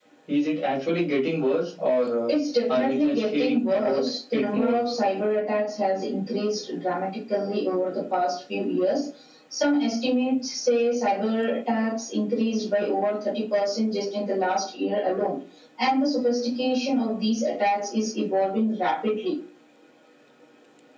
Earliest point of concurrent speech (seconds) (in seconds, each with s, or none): 2.7 s